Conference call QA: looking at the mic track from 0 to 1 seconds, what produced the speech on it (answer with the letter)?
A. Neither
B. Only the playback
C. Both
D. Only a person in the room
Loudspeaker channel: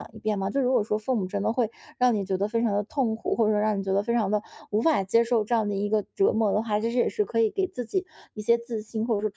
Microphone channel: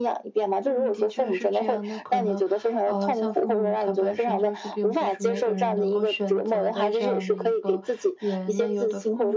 C